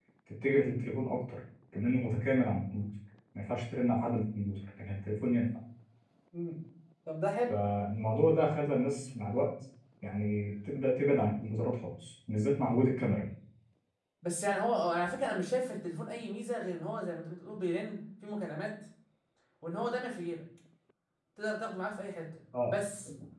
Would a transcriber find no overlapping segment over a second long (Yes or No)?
Yes